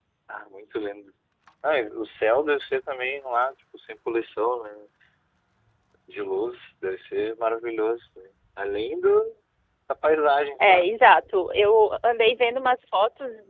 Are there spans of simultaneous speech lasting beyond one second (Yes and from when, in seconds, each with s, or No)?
No